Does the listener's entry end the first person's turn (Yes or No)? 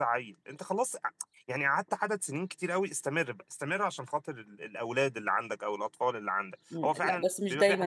Yes